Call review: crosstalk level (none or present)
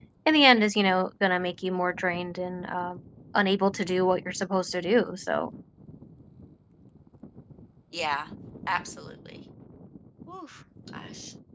none